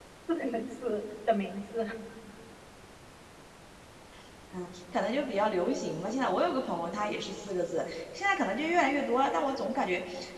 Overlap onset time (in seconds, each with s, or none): none